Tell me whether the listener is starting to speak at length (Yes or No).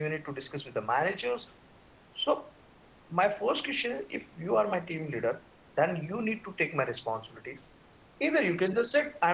No